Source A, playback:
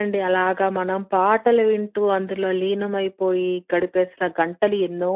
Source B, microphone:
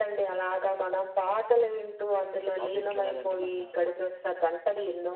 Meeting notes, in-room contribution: present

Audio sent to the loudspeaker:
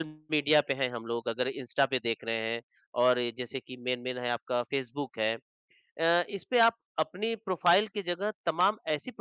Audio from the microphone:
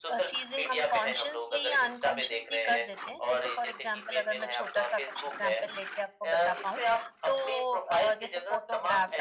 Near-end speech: present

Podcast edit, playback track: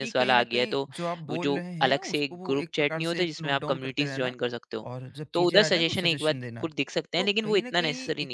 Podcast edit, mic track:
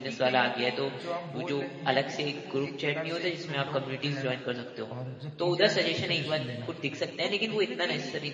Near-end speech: none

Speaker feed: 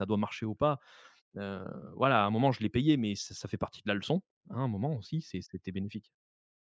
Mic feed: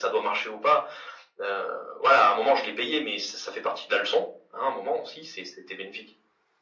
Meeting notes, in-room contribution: none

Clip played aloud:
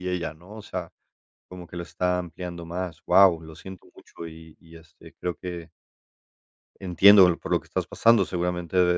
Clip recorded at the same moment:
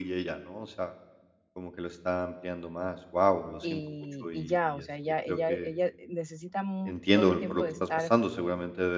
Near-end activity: present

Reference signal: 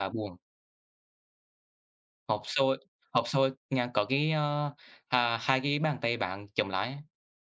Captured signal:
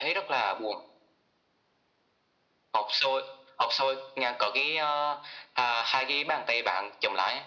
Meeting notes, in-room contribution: none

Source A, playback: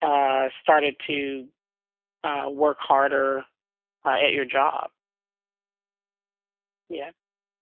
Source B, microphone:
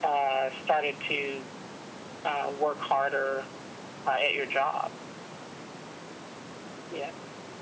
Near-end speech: none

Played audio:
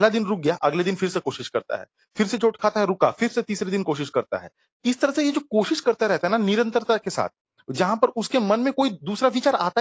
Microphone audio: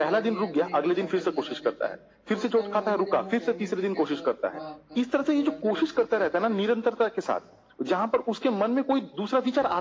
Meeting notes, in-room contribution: present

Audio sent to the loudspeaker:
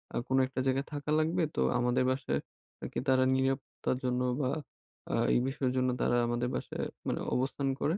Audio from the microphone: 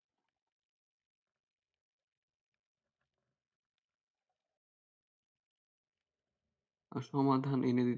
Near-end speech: present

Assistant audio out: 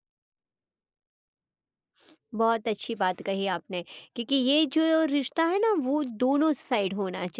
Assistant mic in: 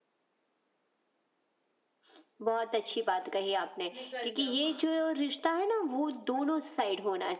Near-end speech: present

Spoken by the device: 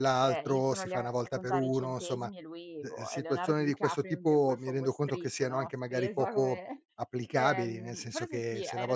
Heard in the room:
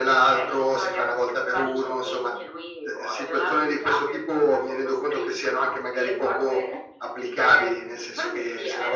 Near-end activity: none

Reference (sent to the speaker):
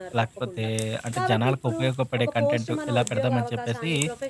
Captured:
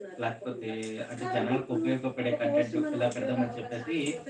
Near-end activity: none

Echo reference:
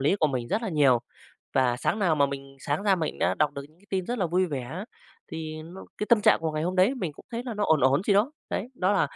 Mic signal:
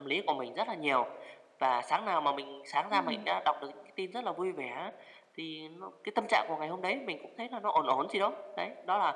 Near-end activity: present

